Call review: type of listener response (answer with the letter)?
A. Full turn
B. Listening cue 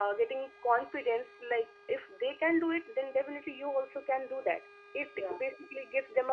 B